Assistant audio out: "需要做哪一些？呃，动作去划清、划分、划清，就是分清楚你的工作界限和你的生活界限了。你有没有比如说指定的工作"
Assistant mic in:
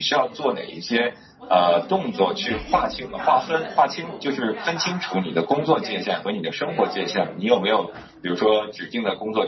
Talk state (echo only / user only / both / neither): both